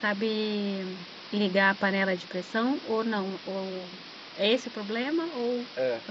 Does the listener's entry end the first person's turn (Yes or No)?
Yes